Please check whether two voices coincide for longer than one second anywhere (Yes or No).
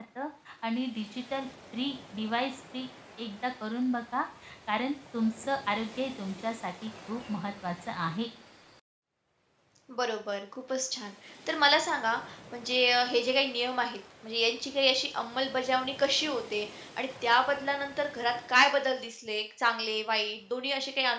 No